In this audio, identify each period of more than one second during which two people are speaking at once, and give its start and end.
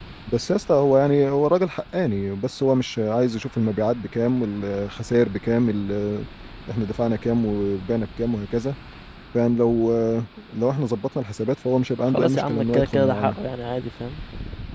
12.0-13.4

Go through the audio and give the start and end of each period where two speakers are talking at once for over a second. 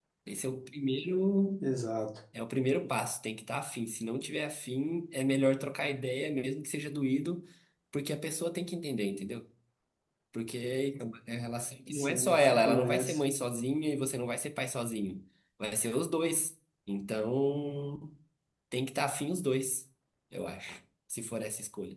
11.9-13.2

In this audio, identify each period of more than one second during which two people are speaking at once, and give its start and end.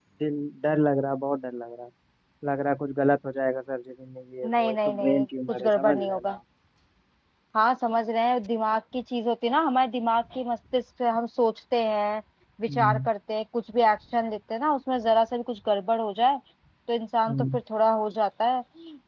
4.4-6.4

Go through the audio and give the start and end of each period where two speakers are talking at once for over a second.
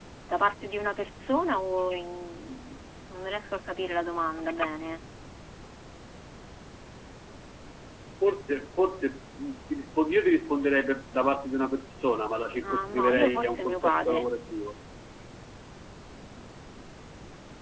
12.6-14.2

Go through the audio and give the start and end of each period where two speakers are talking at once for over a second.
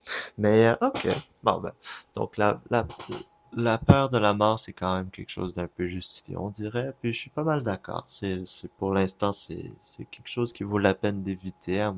none

